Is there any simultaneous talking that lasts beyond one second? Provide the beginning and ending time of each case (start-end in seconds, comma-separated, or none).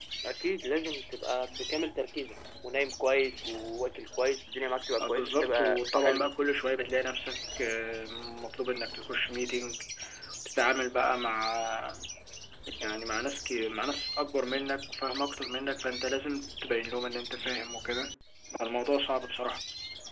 5.0-6.3